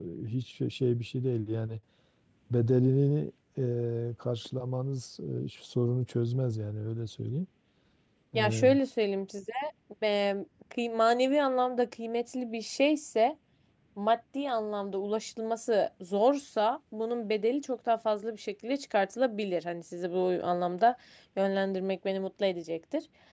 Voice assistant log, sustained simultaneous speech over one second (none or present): none